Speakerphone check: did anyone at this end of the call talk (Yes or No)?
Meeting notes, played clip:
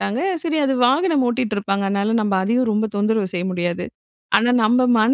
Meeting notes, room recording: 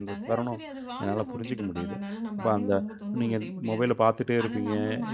Yes